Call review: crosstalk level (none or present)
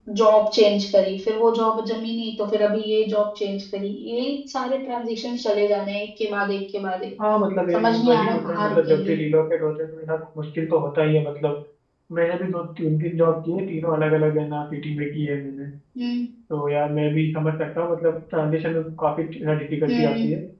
present